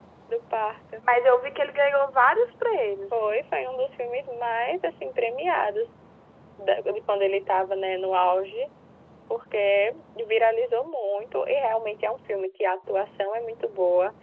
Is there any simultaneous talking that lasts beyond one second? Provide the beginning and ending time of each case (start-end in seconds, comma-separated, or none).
none